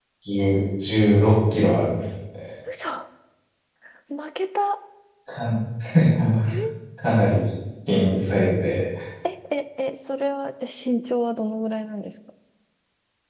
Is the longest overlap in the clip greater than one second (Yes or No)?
No